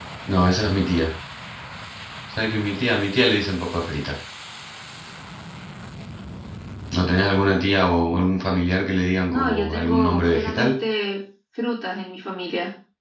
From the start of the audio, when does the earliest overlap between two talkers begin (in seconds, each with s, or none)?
9.3 s